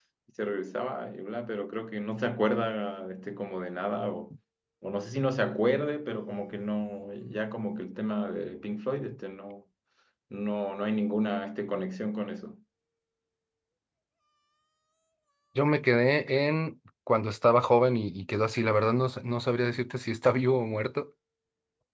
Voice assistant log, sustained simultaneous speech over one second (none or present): none